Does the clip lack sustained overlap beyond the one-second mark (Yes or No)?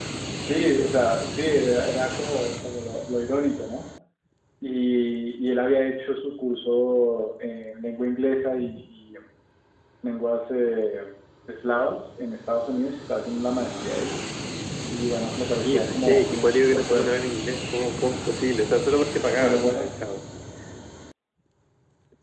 No